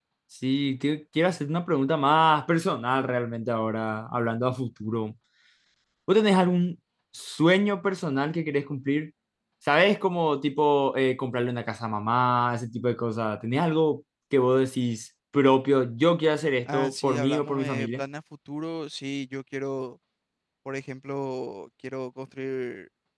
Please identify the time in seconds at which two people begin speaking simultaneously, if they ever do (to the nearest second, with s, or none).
17 s